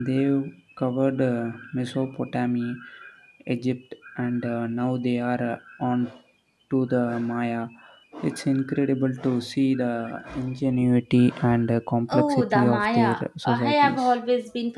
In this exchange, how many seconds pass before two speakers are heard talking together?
12.1 s

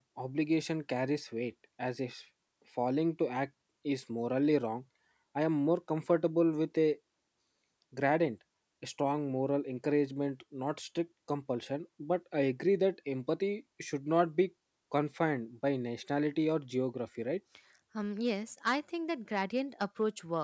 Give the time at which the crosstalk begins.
none

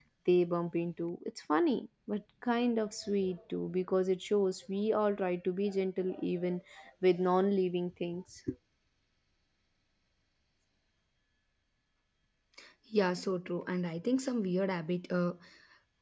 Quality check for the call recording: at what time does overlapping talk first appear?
none

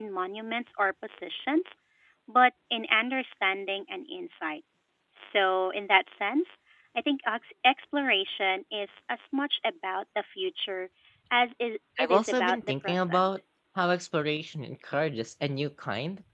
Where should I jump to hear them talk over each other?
12.0 s

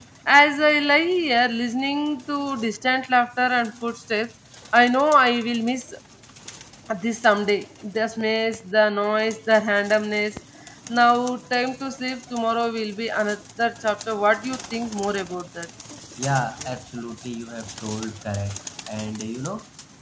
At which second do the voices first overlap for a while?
none

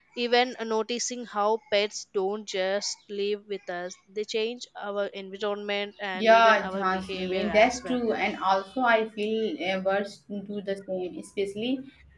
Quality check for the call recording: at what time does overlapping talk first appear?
6.1 s

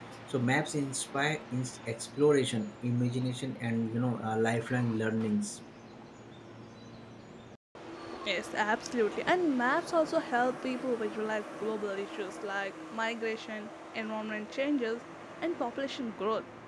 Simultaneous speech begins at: none

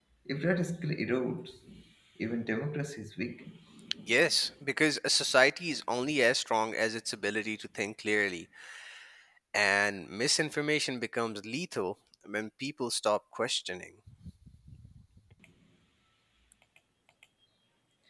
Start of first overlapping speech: none

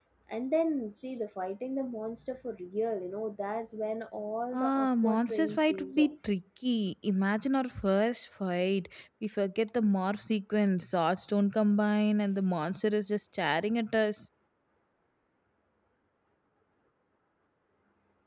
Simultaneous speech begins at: 4.5 s

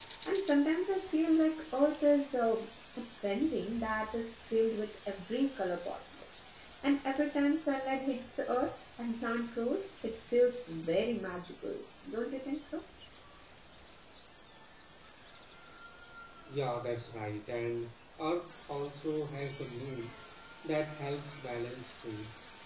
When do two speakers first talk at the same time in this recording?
none

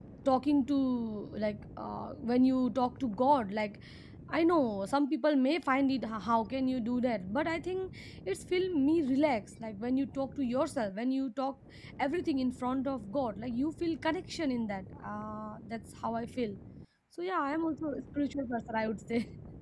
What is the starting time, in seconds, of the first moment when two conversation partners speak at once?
none

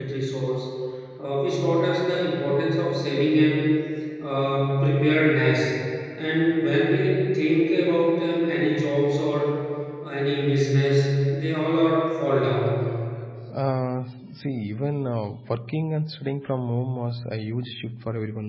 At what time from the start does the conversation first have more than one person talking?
none

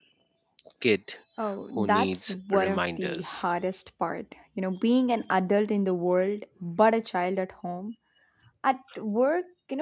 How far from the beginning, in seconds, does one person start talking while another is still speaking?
1.8 s

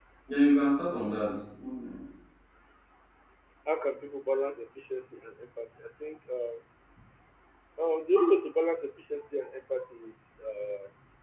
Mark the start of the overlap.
none

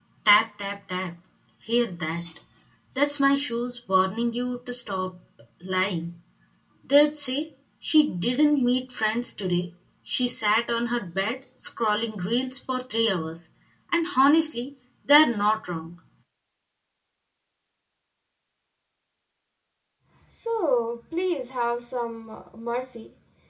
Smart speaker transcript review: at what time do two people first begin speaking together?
none

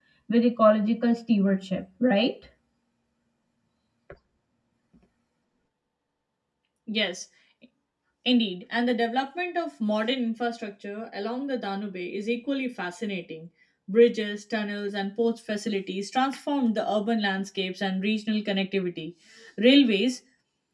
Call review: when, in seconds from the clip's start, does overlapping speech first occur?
none

